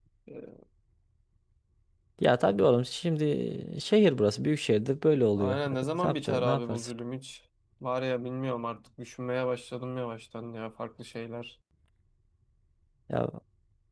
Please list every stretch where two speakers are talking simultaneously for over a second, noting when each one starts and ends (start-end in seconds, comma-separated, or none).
5.4-6.9